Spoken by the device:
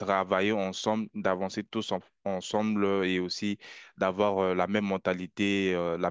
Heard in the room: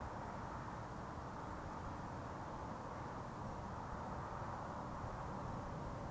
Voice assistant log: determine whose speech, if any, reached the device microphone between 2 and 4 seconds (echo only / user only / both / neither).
neither